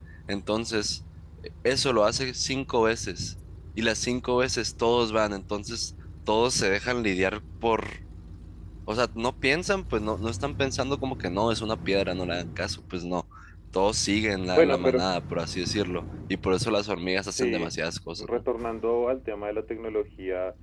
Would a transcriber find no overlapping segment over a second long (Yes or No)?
Yes